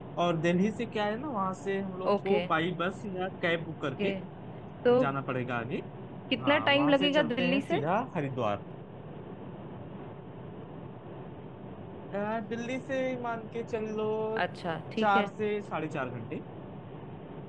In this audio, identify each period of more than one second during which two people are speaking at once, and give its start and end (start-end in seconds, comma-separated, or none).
6.4-7.8